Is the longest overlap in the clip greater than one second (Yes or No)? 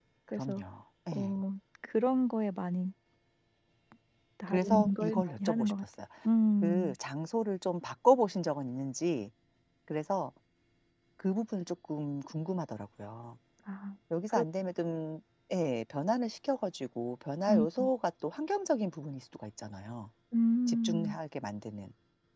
Yes